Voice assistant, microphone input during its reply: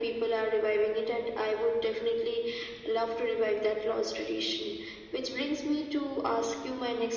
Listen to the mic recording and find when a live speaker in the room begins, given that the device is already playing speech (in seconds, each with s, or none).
none